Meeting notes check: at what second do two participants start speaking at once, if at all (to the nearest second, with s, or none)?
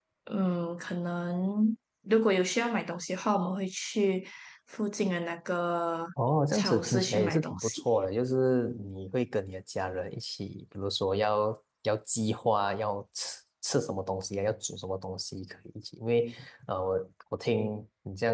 7 s